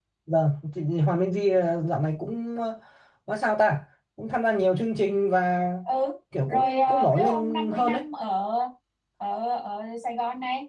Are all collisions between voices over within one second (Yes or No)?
No